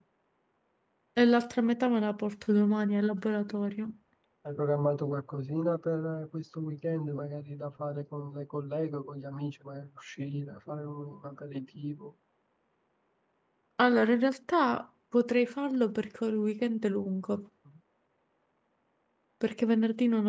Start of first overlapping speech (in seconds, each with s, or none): none